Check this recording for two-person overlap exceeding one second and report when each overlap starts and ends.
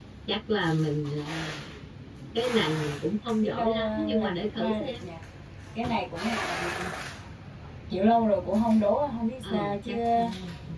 3.4-5.0

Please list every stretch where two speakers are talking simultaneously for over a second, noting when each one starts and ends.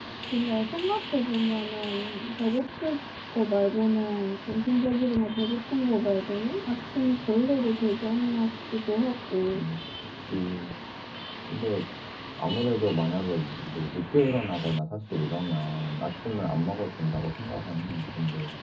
none

